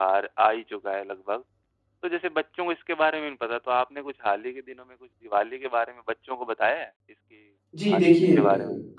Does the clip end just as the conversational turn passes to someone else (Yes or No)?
Yes